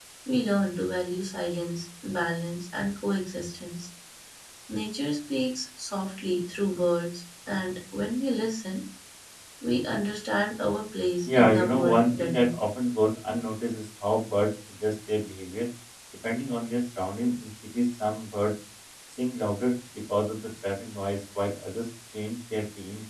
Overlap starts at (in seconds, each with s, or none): 11.2 s